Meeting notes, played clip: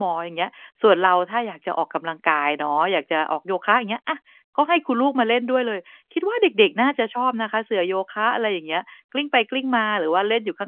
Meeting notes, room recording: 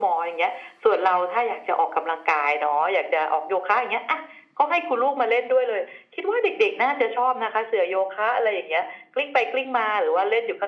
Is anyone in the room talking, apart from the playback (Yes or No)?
No